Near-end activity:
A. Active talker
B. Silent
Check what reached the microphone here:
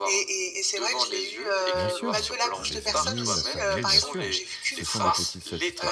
A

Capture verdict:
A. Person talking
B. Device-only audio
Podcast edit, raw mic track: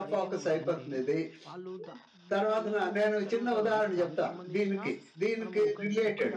A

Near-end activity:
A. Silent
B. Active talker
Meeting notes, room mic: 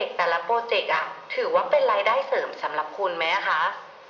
A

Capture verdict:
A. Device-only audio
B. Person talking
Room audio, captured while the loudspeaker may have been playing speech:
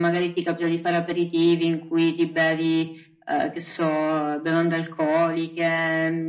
A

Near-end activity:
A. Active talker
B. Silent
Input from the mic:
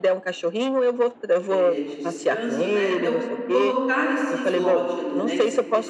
A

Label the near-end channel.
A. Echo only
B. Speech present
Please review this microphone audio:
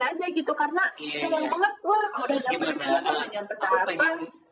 A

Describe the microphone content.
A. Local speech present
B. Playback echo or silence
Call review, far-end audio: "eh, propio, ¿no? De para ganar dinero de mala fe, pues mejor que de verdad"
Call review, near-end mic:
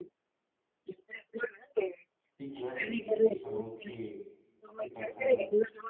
A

